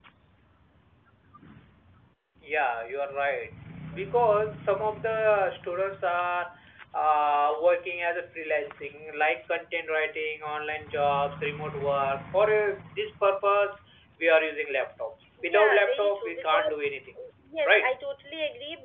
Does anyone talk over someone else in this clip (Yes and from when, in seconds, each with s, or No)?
Yes, from 15.4 s